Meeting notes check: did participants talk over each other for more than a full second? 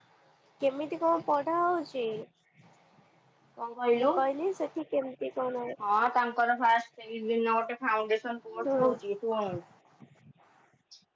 No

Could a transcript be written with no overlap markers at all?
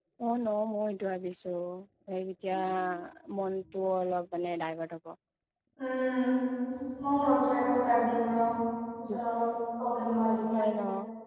Yes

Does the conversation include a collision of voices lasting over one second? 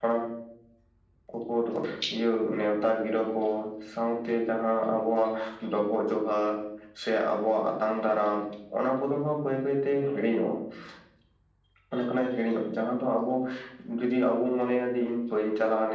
No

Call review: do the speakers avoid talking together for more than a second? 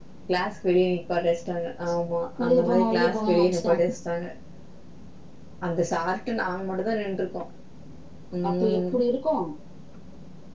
No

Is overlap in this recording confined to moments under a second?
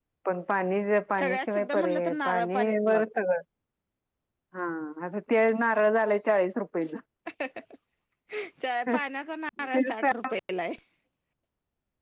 No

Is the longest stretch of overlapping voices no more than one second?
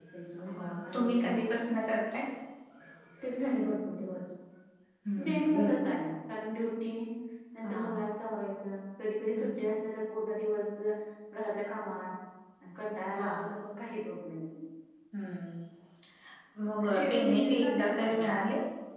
No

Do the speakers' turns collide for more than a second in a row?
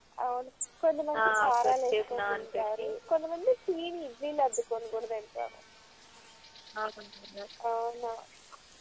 Yes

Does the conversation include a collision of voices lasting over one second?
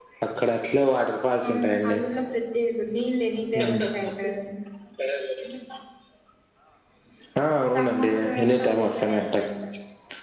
Yes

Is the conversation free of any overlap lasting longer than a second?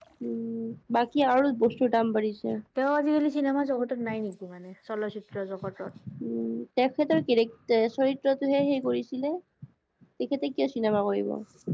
Yes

